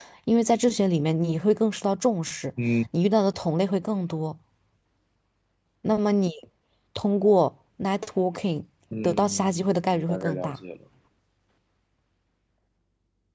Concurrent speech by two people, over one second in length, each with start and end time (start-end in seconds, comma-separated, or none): 9.0-10.5